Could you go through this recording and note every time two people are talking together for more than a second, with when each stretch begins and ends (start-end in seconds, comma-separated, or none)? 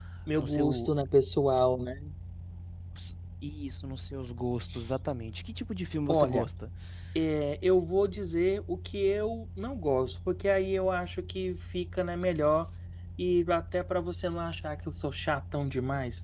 none